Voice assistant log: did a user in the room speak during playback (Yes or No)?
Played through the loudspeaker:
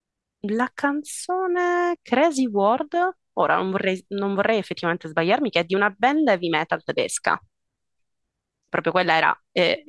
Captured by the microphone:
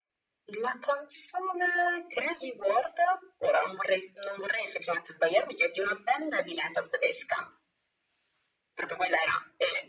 No